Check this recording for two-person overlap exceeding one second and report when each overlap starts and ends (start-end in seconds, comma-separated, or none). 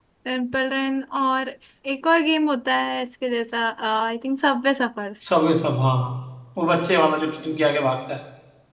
none